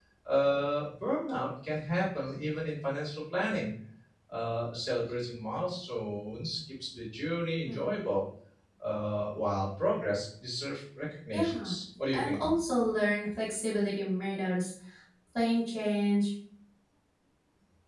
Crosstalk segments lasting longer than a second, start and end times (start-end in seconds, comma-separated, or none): none